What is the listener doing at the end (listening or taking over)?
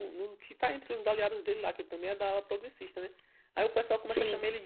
listening